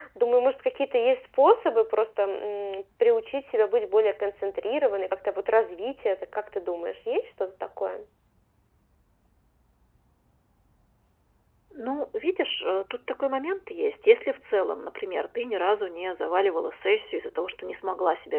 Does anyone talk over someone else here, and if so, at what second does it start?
none

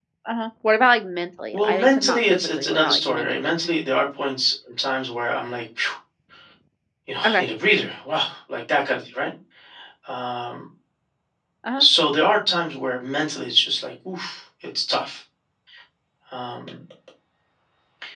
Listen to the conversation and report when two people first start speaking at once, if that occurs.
2 s

